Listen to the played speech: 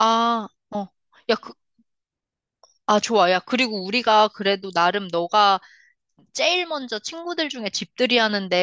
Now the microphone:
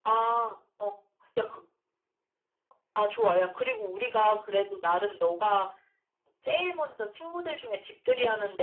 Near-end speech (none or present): none